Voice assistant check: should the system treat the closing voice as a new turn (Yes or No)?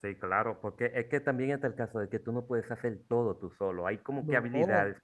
No